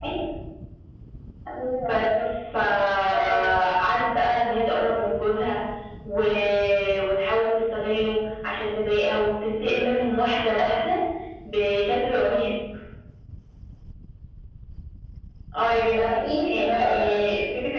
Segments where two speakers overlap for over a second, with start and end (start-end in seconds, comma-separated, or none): 15.9-17.3